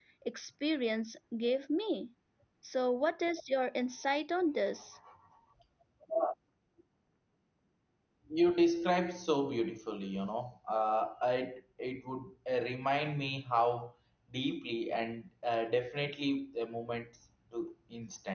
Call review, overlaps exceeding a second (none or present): none